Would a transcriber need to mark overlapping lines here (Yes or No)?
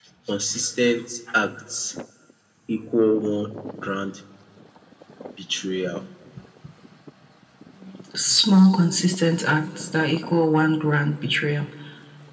No